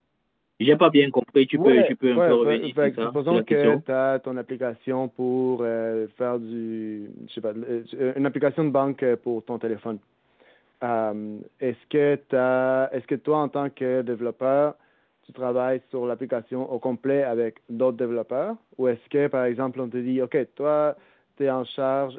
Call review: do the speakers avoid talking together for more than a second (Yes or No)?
No